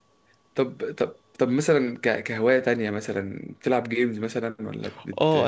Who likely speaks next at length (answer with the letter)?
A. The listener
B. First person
A